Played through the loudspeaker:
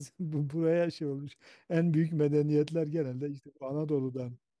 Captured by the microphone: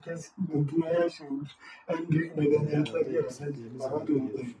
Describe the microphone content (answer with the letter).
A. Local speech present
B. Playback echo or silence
A